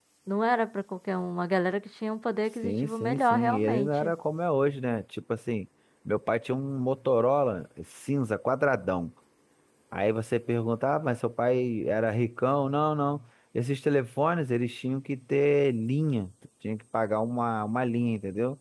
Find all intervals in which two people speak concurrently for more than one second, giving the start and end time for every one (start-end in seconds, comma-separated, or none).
2.6-4.1